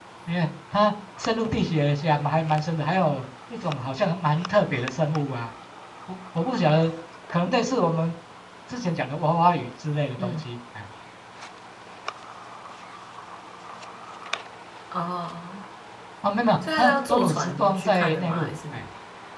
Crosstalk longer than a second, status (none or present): present